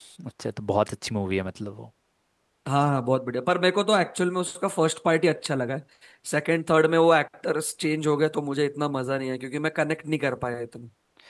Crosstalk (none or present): none